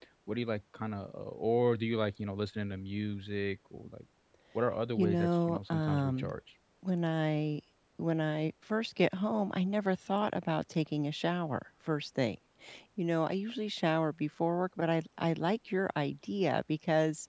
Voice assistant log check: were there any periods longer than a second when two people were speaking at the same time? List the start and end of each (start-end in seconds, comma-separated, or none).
5.0-6.3